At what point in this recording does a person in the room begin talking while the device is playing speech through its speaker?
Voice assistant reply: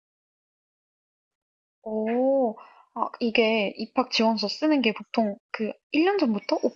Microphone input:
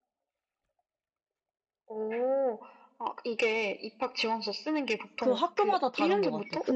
5.2 s

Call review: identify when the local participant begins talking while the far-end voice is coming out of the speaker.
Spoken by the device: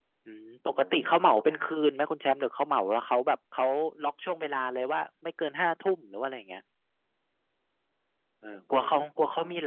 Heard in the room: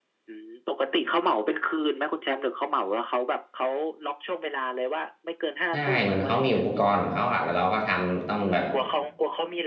5.7 s

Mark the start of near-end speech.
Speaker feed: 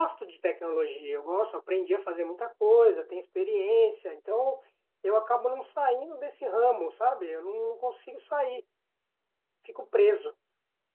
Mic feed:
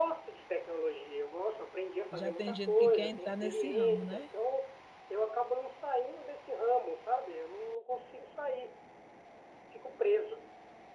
2.1 s

